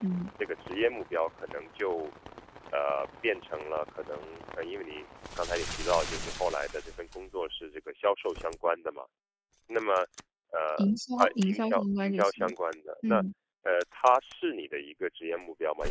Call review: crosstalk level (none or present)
present